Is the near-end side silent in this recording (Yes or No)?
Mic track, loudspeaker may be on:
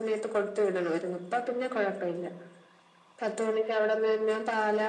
Yes